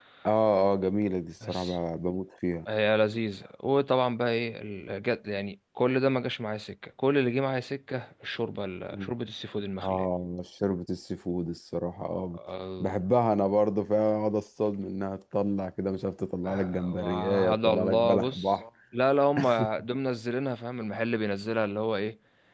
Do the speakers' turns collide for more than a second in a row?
Yes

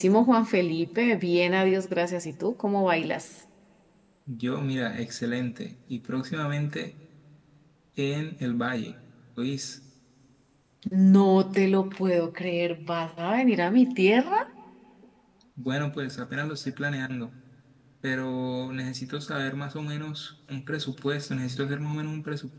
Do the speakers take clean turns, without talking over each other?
Yes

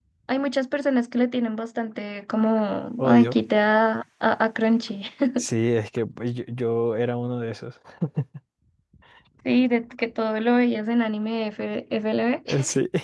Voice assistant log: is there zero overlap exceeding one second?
Yes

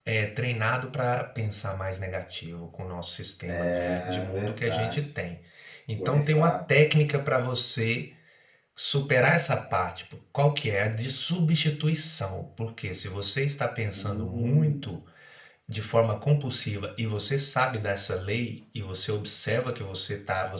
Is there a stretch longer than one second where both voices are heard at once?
Yes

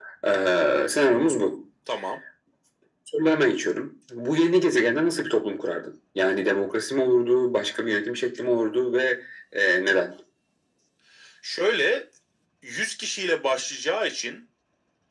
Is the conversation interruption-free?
Yes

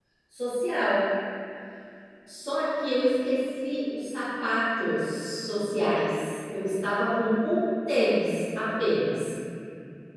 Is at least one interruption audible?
No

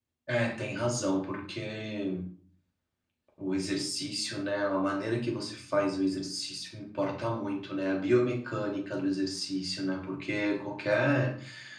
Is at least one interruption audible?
No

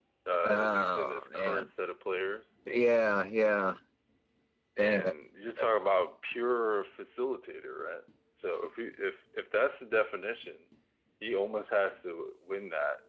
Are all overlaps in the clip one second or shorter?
No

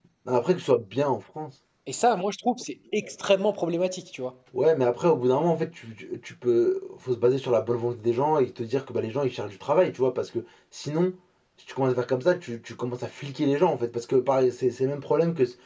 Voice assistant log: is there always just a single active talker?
Yes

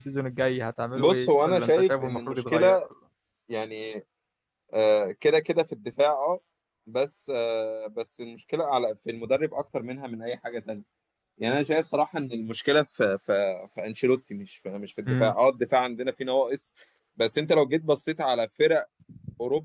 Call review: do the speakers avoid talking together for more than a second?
No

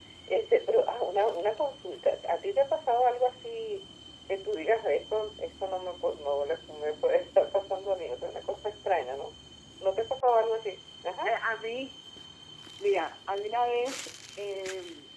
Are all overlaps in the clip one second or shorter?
Yes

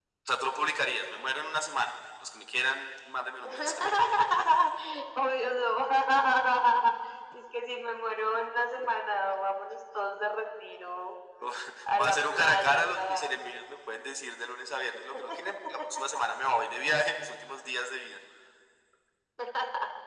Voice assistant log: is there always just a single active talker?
No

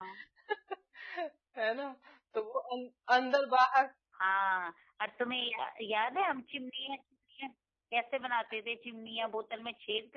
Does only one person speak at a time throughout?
Yes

